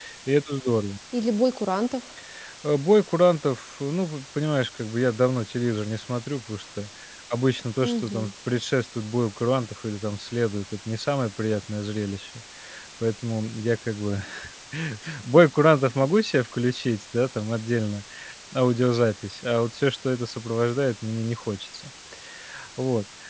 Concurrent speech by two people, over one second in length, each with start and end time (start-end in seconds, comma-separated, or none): none